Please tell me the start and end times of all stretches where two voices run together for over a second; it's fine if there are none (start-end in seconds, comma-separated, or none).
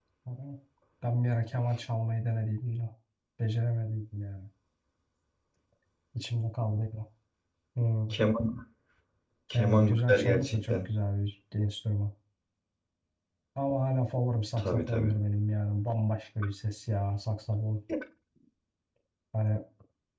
9.5-10.7